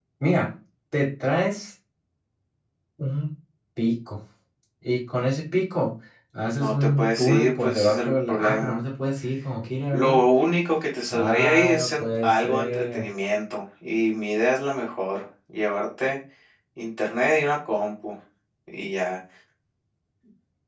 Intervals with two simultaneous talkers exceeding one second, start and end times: 6.6-8.8, 11.1-13.1

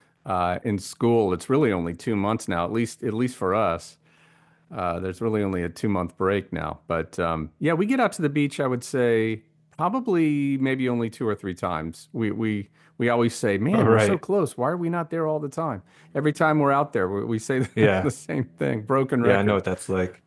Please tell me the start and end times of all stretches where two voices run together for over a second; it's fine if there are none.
none

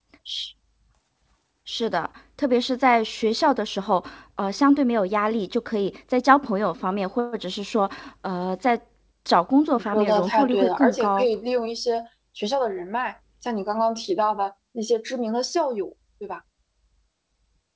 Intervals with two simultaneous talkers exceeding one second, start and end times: 9.8-11.3

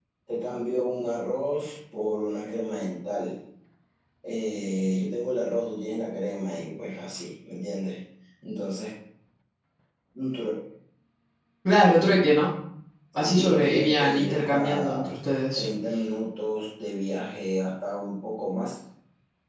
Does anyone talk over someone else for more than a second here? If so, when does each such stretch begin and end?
13.2-15.1

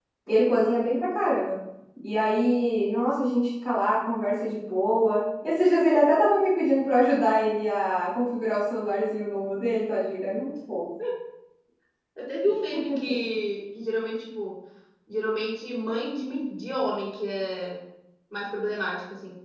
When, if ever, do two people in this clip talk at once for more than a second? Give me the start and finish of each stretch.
none

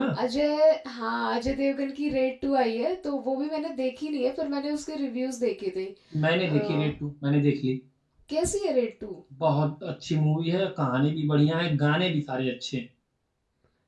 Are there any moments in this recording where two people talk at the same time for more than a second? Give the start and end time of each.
none

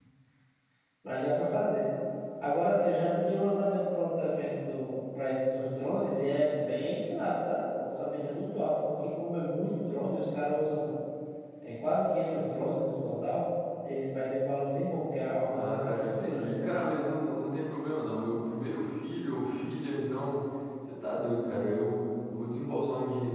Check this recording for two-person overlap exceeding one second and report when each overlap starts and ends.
15.5-16.8

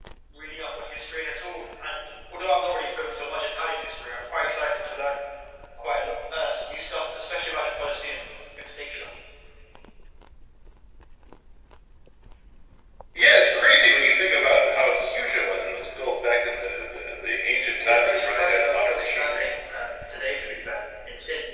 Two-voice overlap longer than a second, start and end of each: 17.8-19.5

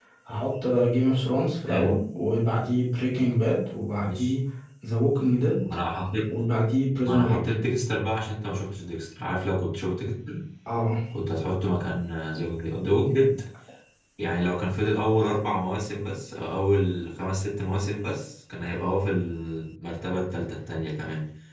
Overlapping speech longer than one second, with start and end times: none

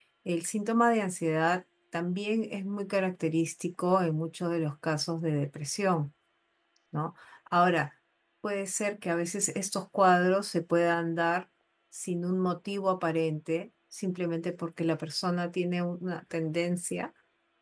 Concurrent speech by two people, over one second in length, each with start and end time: none

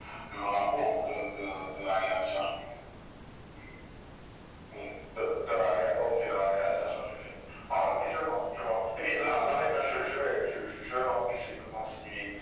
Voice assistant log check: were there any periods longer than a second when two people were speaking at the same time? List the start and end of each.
none

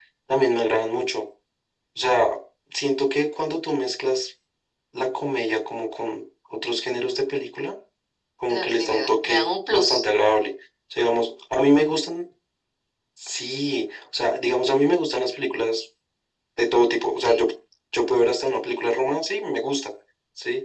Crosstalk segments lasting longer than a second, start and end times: 8.5-9.9

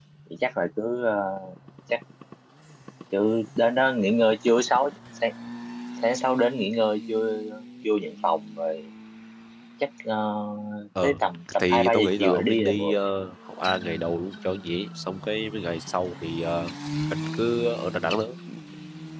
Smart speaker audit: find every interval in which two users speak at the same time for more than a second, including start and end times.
11.6-13.0

